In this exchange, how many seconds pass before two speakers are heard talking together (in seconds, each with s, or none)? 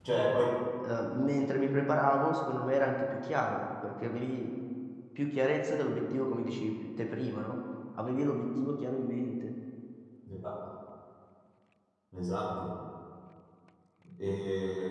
none